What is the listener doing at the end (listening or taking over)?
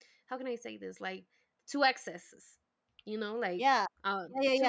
taking over